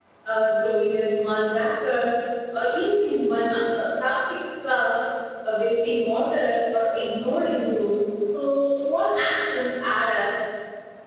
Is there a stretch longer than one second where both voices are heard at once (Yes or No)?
No